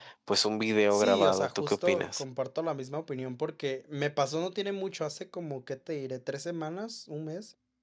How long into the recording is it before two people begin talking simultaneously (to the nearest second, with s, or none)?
1 s